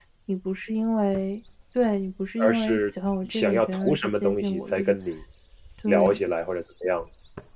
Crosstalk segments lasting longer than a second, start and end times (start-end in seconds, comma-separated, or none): 3.3-5.0